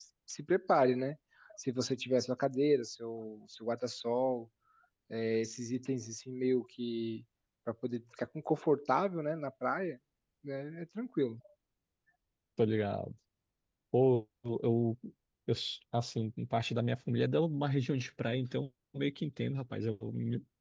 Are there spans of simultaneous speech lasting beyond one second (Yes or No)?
No